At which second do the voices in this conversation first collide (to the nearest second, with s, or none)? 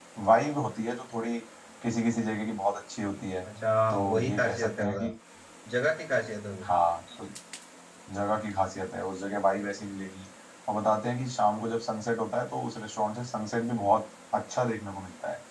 4 s